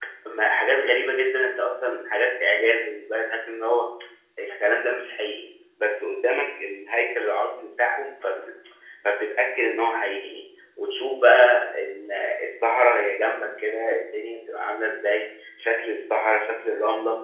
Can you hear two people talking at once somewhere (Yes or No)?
No